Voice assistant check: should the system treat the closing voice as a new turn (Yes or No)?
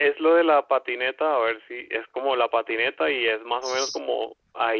No